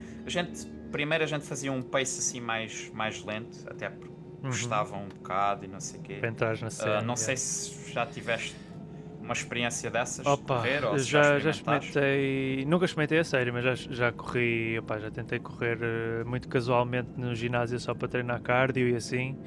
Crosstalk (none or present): present